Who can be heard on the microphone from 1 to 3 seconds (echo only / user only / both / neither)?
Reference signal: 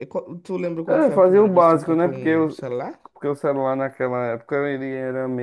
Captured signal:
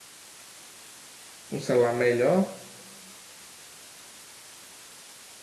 user only